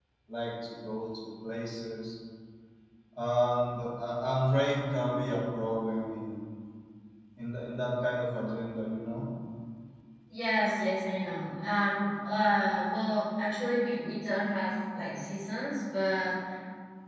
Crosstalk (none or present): none